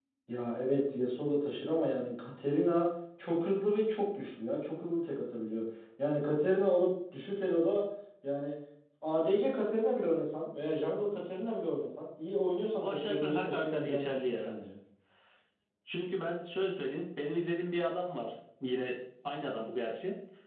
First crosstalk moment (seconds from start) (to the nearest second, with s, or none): 13 s